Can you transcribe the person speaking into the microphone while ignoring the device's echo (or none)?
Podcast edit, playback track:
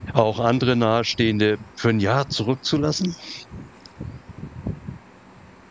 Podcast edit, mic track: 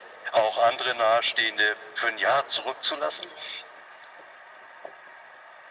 none